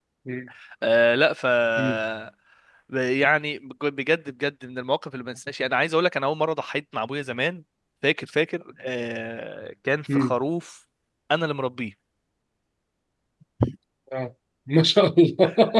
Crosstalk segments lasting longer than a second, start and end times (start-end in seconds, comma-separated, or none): none